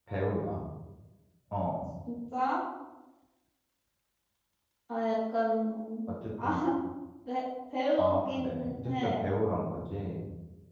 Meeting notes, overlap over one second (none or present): present